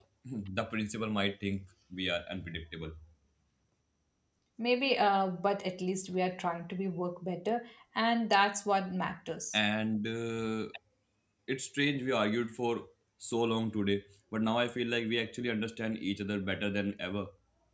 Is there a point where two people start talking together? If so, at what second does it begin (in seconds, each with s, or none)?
none